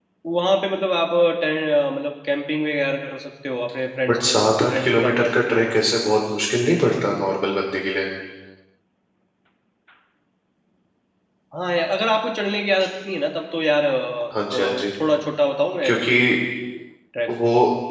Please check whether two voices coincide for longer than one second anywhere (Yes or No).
Yes